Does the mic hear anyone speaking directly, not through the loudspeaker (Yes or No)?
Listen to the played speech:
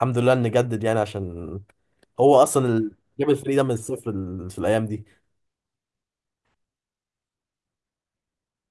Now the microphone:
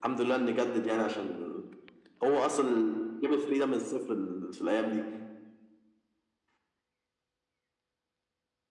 No